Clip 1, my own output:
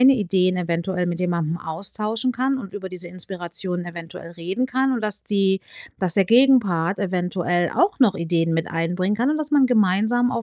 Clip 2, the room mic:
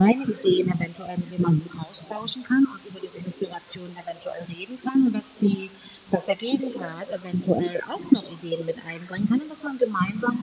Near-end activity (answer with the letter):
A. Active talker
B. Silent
B